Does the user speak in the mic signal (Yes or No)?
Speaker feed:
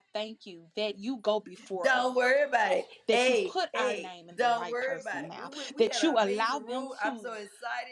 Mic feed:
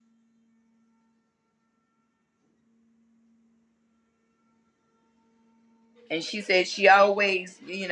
Yes